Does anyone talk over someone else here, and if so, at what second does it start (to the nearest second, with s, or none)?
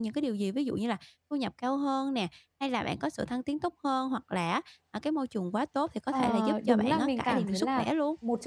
6 s